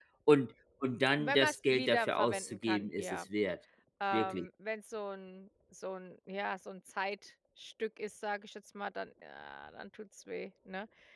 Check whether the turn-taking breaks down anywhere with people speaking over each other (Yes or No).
Yes